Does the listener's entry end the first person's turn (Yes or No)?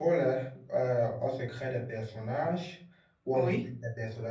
No